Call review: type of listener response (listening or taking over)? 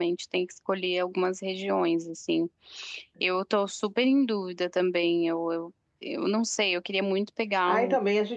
taking over